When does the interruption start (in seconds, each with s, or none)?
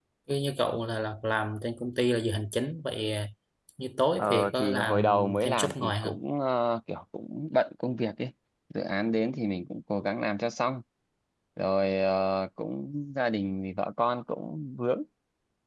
4.2 s